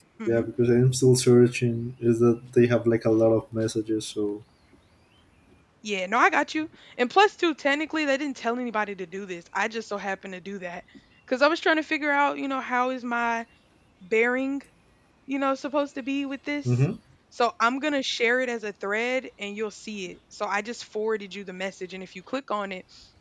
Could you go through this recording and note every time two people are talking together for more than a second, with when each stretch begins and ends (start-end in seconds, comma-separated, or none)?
none